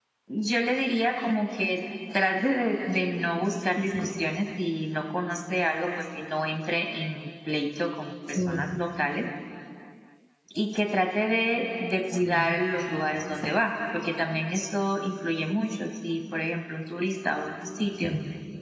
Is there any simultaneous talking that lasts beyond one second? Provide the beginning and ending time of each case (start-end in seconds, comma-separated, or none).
none